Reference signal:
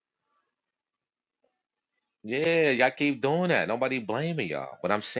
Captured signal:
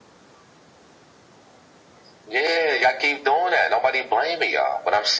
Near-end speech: none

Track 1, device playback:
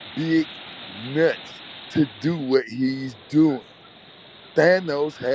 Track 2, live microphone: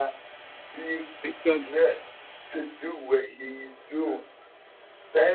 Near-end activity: present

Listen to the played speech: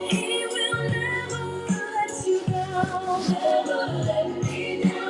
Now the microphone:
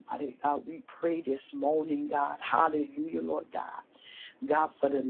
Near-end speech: present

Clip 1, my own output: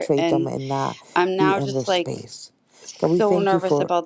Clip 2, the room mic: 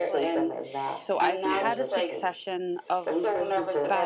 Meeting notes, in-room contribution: present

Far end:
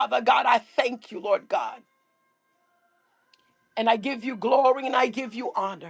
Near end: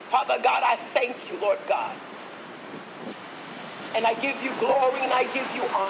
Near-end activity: none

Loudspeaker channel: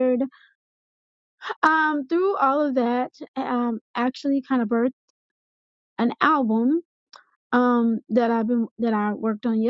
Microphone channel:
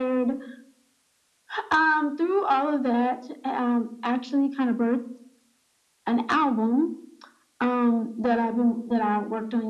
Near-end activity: none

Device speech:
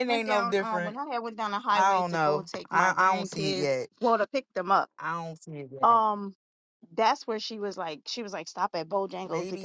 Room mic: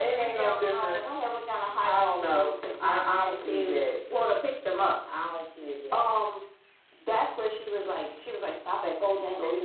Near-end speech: none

